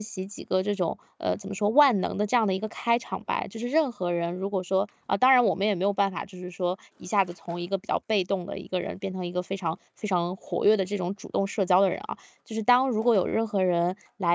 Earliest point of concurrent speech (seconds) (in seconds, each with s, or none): none